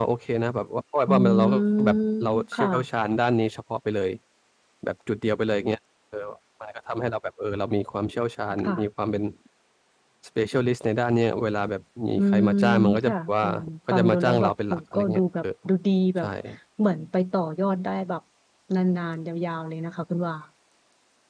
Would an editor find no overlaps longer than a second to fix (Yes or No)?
No